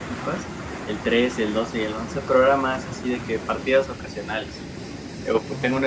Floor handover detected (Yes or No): No